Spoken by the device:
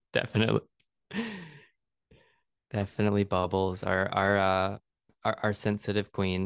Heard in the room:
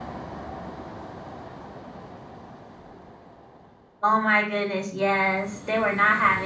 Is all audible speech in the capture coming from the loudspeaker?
No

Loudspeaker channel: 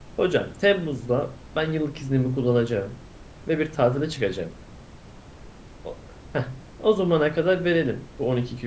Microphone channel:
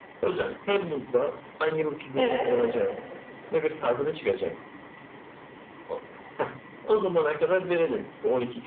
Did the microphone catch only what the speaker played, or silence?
No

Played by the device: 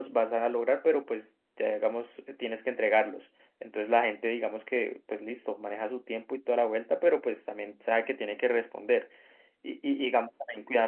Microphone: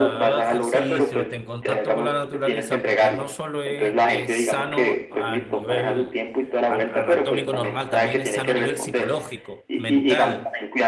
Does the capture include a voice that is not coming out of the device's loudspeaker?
Yes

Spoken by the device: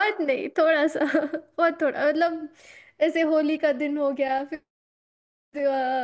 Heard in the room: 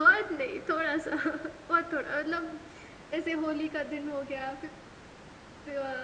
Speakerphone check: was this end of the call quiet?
Yes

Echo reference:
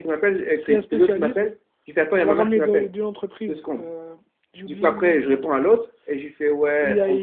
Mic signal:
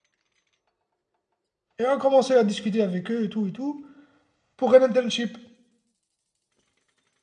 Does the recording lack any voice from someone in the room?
No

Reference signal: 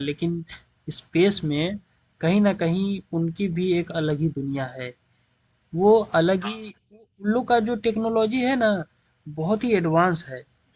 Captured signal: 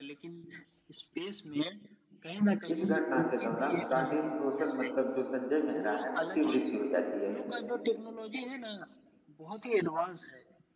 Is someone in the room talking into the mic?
Yes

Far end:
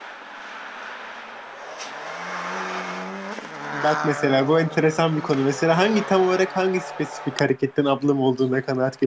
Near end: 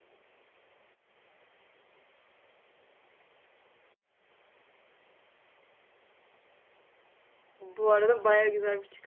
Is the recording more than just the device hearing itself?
Yes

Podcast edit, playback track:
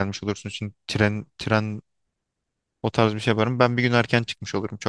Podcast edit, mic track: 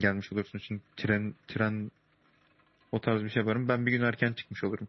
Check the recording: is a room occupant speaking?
No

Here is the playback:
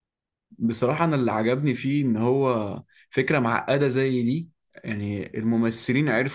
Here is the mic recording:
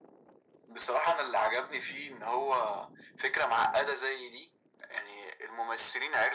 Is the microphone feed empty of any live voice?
Yes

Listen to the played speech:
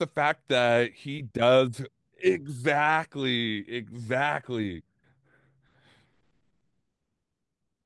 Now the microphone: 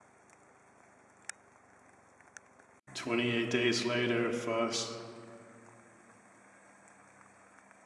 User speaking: Yes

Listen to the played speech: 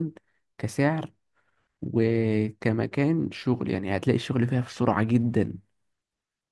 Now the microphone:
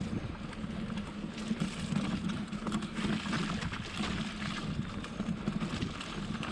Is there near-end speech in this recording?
No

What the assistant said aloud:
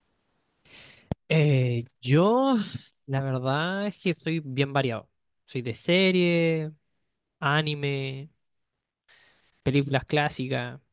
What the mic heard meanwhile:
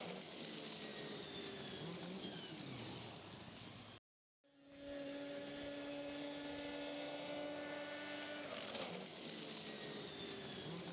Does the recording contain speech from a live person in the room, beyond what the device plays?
No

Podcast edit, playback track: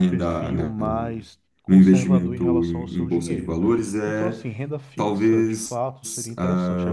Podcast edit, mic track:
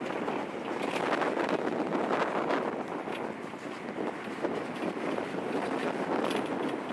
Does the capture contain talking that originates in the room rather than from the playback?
No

